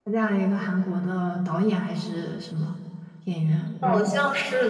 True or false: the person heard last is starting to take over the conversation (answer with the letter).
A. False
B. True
B